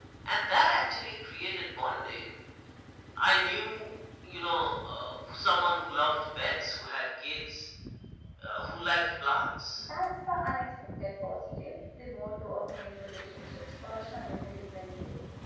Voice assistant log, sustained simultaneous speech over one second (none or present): none